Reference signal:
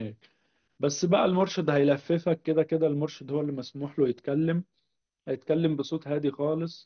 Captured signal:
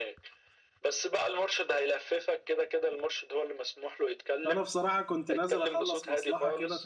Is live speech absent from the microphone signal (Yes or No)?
No